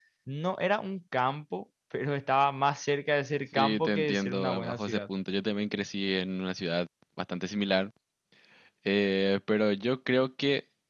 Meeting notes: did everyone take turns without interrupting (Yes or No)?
No